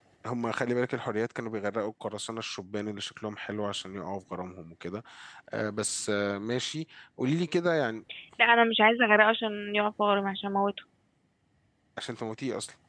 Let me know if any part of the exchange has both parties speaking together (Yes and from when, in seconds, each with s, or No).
No